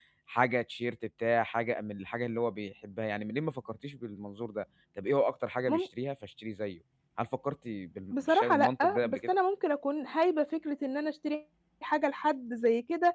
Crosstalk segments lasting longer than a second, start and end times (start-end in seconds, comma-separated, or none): 8.1-9.3